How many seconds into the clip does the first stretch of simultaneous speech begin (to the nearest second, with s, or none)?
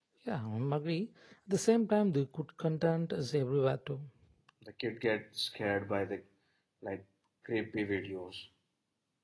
none